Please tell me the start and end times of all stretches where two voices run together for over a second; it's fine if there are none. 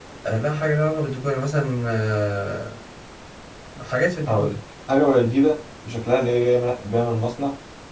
none

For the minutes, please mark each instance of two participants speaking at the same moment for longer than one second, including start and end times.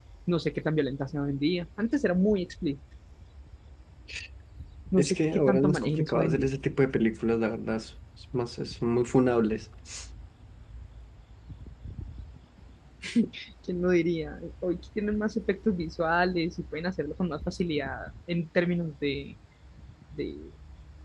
5.0-6.5

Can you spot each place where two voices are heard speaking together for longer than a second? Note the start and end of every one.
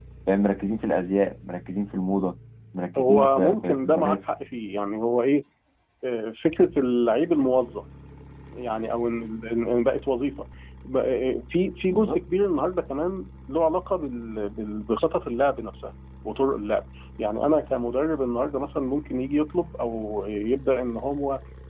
3.0-4.2

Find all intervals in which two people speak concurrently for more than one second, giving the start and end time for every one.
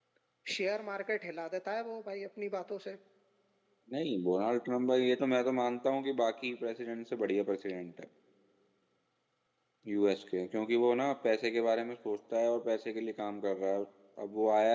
none

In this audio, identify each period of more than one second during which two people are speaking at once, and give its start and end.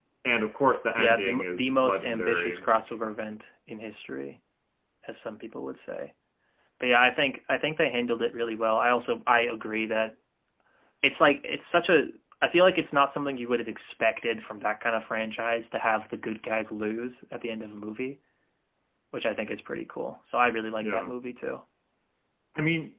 1.0-2.6

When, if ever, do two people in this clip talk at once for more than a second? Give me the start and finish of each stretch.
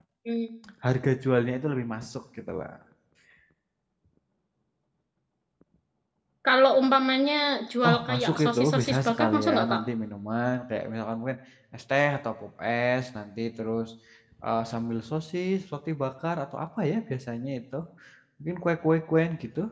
7.8-9.8

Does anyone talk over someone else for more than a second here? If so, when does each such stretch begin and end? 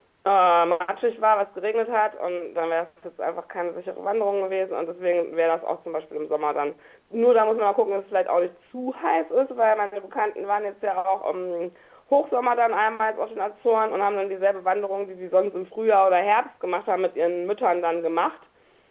none

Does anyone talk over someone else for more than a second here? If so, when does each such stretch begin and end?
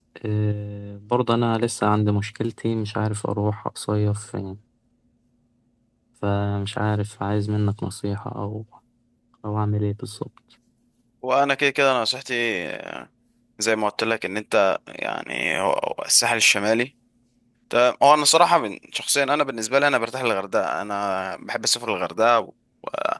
none

